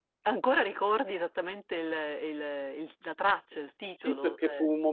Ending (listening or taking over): taking over